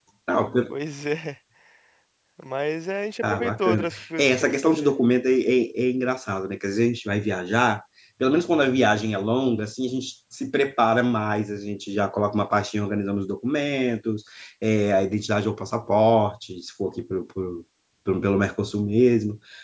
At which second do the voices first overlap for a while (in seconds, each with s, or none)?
3.2 s